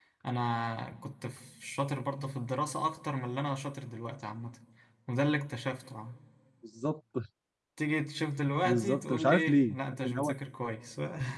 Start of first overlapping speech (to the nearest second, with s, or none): 9 s